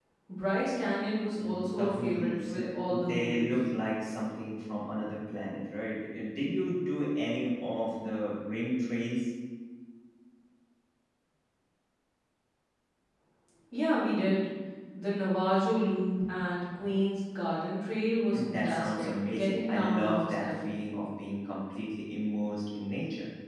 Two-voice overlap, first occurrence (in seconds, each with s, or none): 1.4 s